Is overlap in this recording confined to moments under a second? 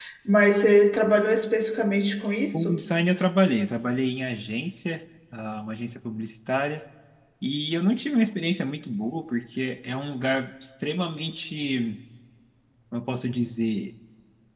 Yes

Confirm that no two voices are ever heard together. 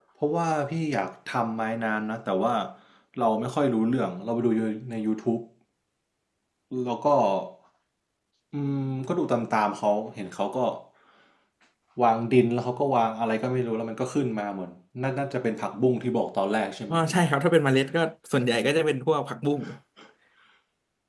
Yes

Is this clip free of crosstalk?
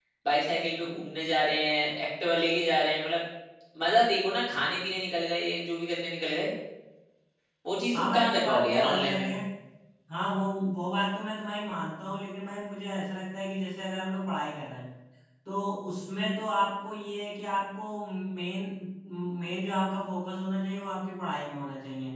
No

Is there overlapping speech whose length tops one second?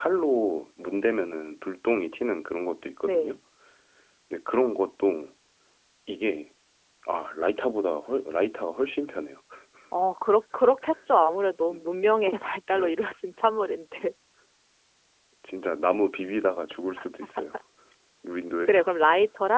No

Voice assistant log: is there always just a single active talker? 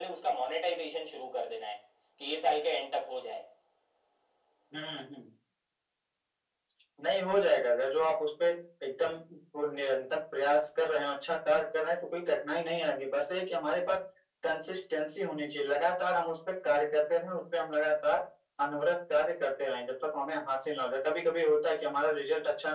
Yes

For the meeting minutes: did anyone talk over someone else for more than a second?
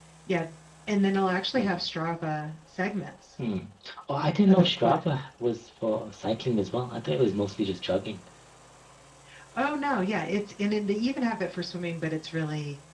No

